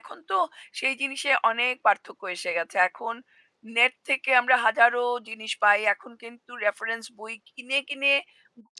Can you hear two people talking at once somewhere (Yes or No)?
No